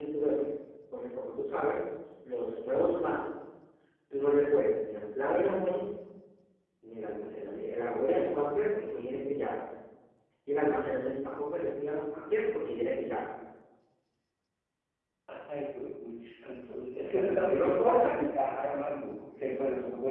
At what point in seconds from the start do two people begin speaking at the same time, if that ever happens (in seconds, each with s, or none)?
17.0 s